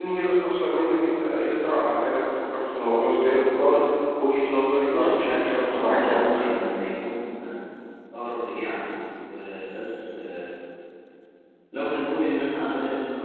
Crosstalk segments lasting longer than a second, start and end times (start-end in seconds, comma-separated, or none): 4.9-6.6